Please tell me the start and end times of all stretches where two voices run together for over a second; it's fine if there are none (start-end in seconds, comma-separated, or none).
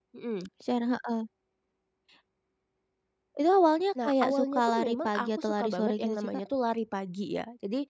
4.0-6.4